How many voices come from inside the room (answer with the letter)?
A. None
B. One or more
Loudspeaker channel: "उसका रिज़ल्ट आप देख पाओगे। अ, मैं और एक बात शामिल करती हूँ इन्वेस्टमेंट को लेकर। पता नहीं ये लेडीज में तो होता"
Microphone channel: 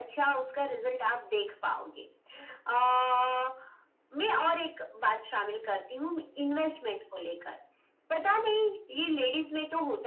A